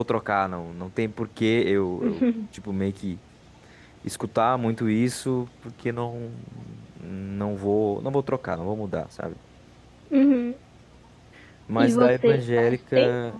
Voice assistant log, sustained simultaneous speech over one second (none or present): present